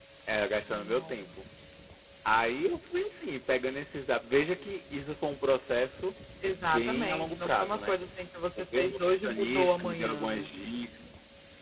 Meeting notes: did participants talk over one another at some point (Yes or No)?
Yes